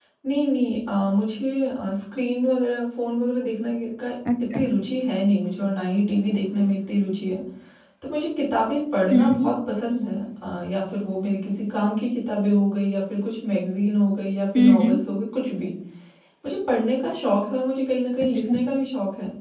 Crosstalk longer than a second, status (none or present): none